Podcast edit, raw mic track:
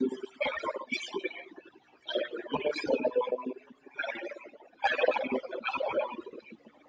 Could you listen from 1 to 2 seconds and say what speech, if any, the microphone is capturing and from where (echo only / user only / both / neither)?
echo only